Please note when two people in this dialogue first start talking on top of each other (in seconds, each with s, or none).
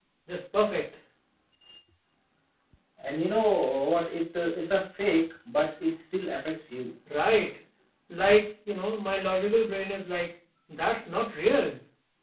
none